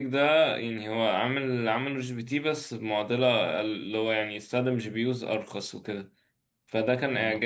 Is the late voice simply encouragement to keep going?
Yes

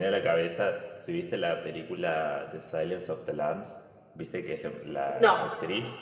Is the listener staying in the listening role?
Yes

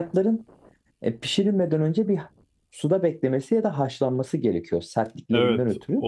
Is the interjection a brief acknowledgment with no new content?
No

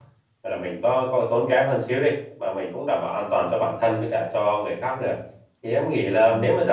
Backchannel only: Yes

